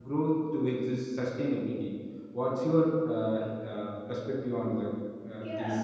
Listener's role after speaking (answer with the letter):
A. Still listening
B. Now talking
B